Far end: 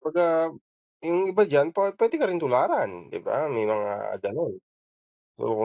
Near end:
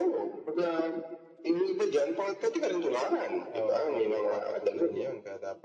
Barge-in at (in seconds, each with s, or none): 3.5 s